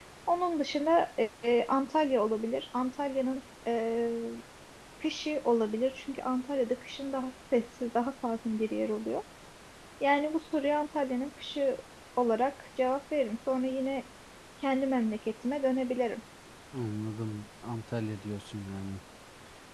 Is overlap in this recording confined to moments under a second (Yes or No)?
Yes